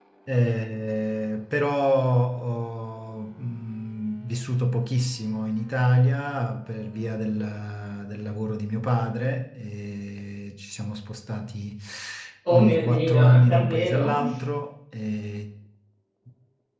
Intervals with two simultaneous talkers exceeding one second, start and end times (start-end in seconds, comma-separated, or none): 12.5-14.1